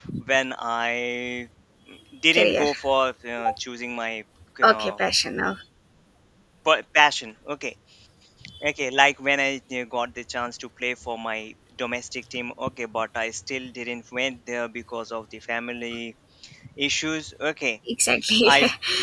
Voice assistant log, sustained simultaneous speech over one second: none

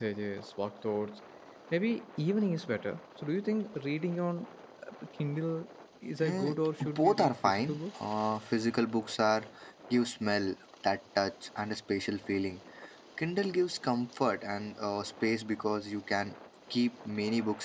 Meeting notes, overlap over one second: present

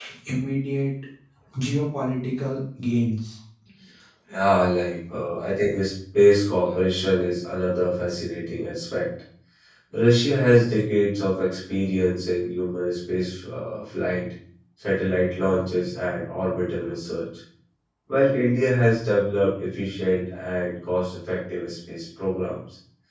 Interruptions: none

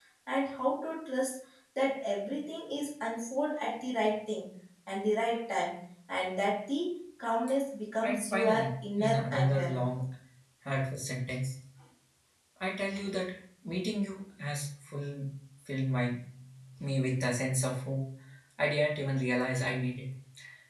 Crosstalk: present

